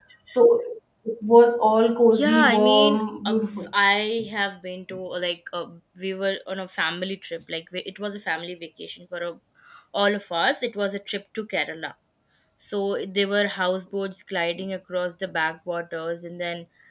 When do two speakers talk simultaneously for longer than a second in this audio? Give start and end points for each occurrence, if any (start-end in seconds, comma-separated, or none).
2.1-3.7